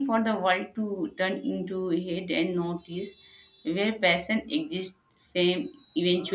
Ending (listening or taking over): taking over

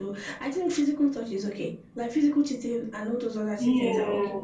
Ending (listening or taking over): listening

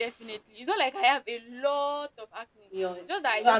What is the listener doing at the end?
taking over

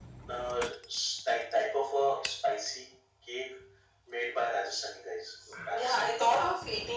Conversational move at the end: taking over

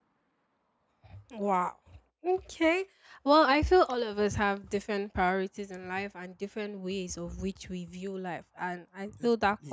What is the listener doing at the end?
listening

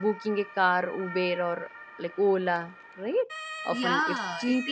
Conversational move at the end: taking over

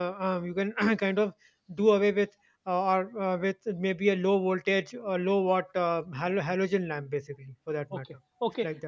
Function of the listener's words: taking over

